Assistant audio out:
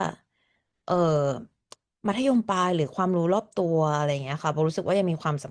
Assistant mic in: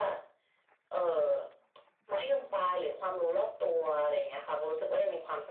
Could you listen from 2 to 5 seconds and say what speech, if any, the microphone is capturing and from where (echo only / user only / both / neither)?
echo only